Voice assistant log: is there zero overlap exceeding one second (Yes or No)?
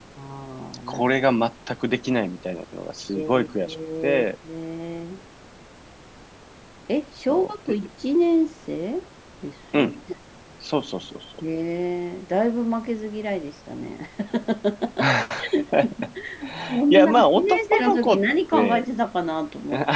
No